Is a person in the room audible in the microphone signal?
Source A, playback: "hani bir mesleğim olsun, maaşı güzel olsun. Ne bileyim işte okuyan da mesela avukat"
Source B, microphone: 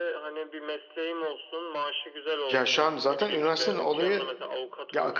Yes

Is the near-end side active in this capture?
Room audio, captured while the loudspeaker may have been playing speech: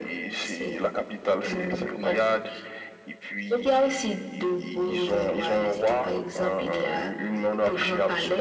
No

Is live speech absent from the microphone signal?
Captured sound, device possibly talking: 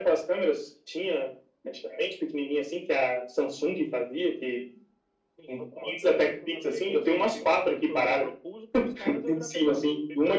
No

